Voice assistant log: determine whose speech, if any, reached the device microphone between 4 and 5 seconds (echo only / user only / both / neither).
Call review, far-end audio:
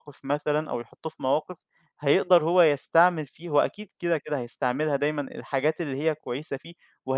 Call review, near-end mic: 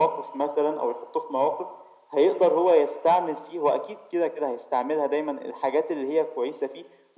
echo only